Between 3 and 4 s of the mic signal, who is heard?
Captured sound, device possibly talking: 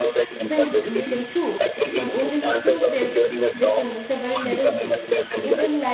both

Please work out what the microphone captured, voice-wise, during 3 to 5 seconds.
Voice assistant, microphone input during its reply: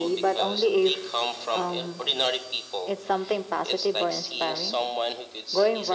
echo only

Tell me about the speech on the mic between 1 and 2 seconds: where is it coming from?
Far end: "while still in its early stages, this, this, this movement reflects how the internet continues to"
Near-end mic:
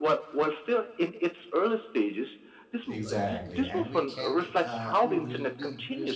echo only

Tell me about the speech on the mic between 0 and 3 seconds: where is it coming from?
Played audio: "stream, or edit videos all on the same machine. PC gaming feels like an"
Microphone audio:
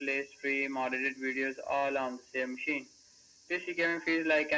echo only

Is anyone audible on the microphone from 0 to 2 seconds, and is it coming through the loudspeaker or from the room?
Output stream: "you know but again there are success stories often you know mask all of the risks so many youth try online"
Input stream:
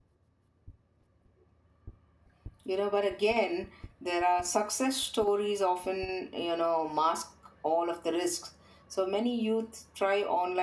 neither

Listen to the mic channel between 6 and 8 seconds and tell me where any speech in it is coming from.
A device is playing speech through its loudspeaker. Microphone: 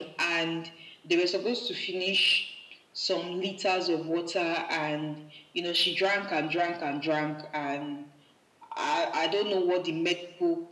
echo only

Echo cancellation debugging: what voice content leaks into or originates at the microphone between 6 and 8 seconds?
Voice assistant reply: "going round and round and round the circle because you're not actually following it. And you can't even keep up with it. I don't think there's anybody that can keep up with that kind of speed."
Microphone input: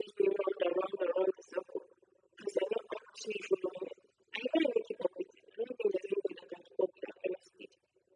echo only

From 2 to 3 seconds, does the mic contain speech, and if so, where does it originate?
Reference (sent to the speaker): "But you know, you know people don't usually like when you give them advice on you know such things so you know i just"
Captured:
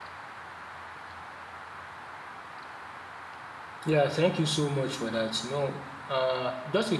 neither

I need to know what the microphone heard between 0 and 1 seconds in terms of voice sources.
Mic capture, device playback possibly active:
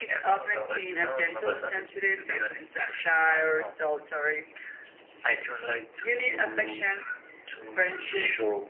echo only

